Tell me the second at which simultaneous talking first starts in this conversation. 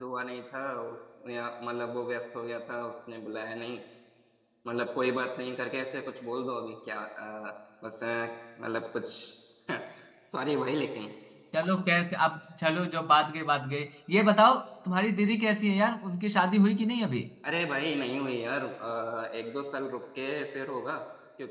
none

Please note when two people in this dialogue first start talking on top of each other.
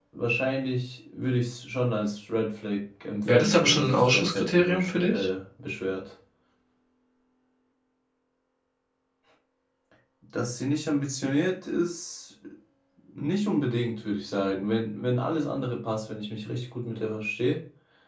3 s

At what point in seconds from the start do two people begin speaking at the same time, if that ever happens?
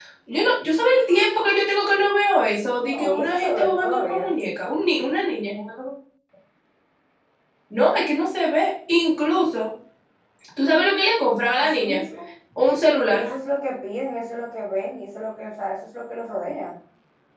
3 s

